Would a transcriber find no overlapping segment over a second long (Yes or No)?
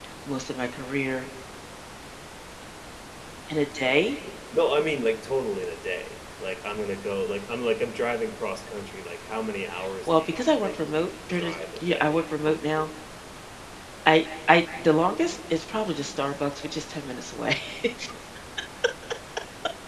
No